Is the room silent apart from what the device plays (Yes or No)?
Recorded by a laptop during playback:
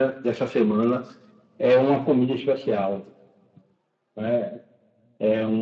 Yes